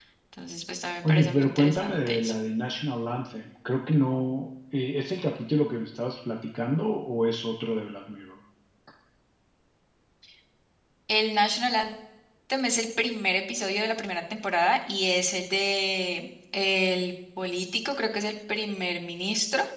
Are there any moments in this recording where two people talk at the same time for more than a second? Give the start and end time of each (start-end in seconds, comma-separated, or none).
1.0-2.3